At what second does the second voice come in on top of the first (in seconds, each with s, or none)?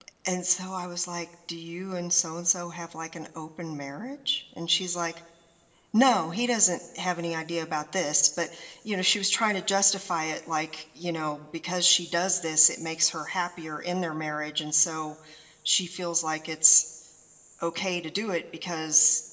none